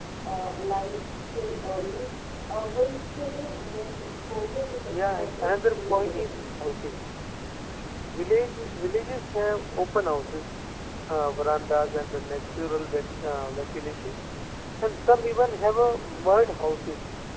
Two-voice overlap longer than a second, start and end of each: 5.0-6.4

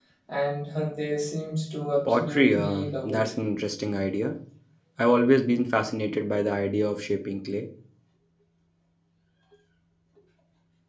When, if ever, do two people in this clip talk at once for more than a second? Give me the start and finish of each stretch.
2.0-3.3

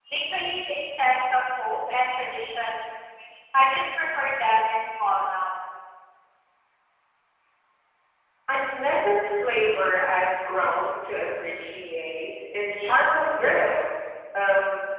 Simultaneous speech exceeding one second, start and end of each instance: none

